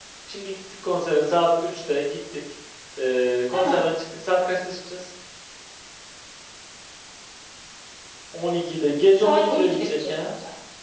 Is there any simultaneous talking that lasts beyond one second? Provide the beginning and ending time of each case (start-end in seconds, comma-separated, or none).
9.1-10.3